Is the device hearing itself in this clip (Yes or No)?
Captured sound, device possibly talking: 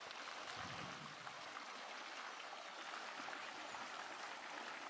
No